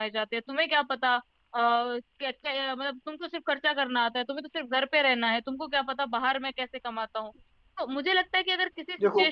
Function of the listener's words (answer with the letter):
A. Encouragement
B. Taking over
A